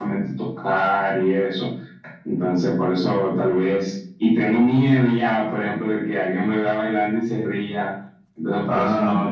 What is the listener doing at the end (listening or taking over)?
listening